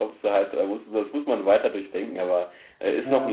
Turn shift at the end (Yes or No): No